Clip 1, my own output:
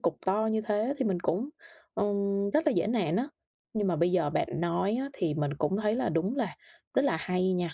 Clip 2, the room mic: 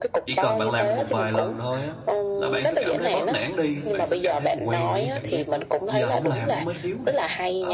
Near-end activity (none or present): present